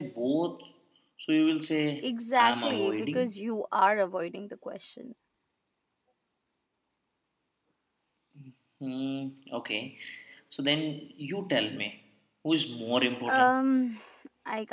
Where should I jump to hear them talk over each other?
2.0 s

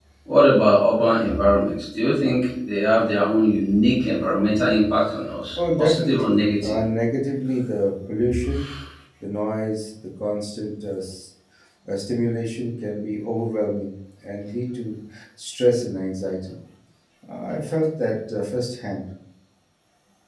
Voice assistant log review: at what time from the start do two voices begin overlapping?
5.5 s

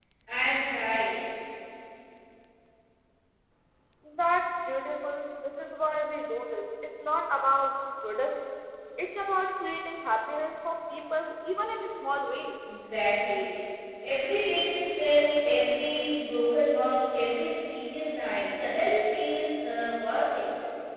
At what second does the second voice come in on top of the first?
none

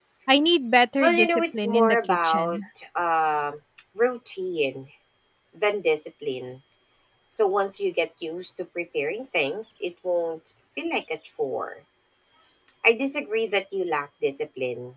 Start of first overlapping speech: 1.0 s

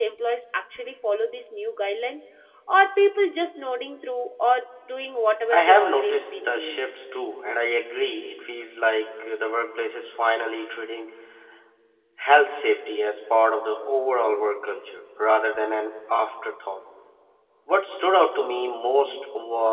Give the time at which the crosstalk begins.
5.5 s

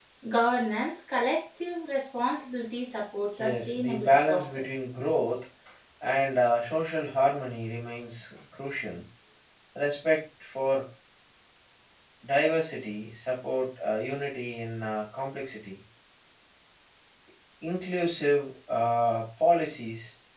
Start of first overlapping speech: 3.4 s

